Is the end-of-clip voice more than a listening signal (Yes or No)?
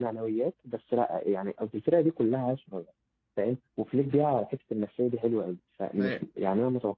No